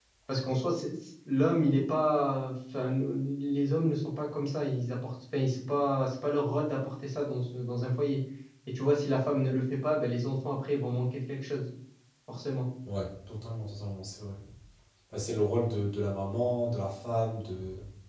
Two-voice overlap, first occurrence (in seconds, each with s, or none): none